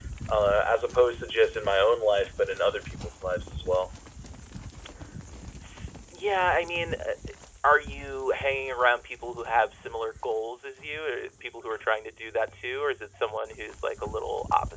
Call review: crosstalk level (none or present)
none